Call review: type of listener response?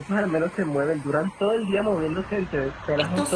listening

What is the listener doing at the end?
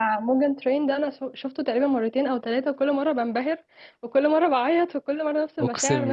taking over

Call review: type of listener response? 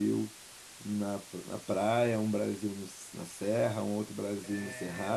listening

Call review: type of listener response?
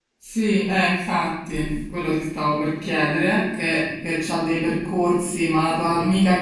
listening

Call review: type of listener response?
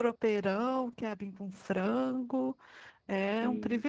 taking over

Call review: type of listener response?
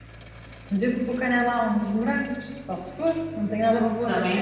taking over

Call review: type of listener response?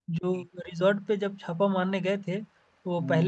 listening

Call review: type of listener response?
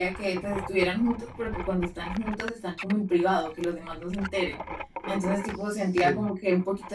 listening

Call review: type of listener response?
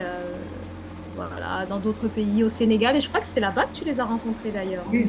taking over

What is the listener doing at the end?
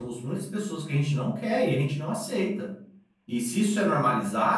listening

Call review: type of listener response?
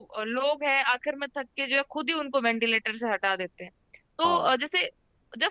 listening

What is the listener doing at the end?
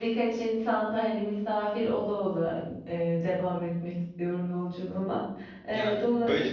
taking over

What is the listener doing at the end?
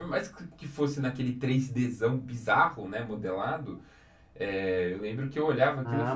taking over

